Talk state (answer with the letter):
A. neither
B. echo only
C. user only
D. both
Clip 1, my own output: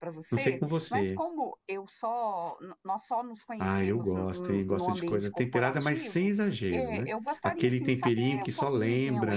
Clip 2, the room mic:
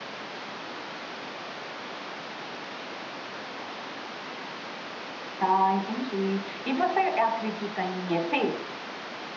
C